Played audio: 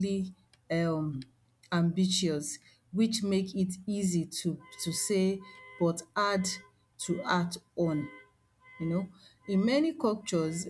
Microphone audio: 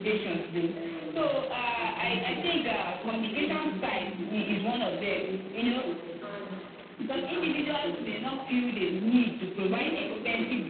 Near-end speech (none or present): present